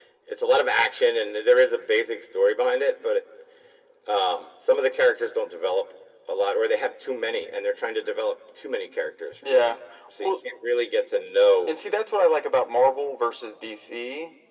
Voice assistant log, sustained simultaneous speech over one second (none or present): none